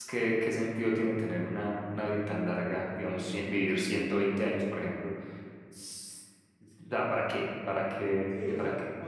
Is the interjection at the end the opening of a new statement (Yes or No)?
Yes